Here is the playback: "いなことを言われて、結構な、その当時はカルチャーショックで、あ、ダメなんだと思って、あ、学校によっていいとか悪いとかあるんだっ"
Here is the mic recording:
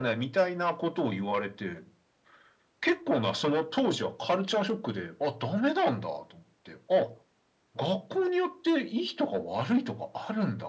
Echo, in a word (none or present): present